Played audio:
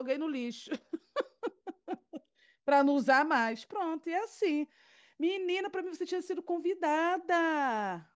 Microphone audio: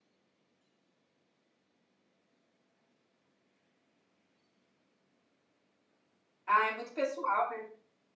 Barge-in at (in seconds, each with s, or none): 6.5 s